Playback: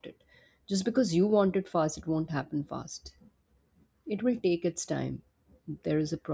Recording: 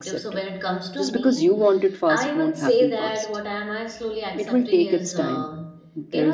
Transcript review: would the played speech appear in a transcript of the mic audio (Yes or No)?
Yes